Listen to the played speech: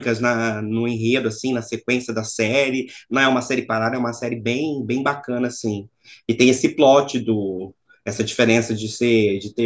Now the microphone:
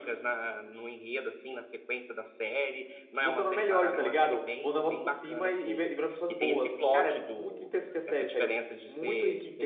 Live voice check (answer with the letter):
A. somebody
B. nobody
A